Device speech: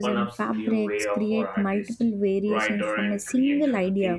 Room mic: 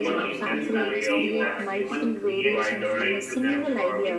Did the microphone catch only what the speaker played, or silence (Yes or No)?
No